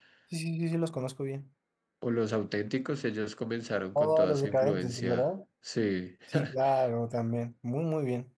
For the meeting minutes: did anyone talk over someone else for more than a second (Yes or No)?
Yes